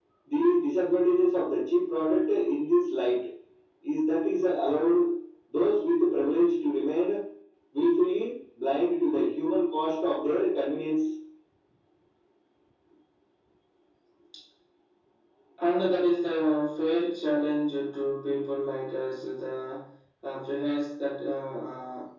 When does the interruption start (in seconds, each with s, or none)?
none